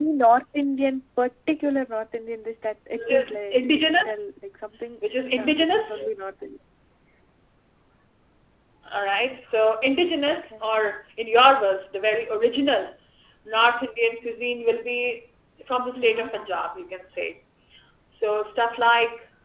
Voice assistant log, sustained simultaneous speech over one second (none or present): present